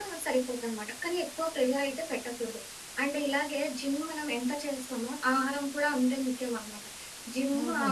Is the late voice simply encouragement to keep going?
Yes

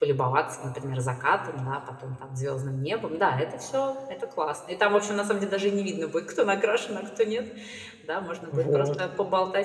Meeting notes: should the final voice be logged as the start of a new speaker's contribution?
No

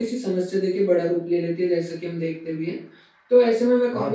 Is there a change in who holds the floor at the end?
No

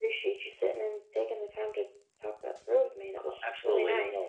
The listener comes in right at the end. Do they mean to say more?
Yes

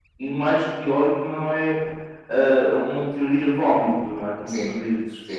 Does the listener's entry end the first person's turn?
No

